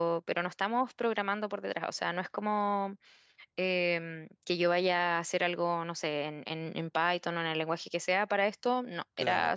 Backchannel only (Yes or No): Yes